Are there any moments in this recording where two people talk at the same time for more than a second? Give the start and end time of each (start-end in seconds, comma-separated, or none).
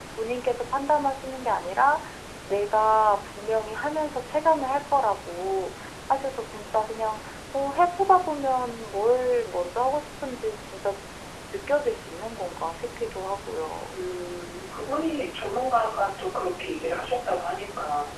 none